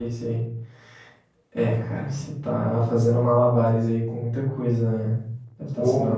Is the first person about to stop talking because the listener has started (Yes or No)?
No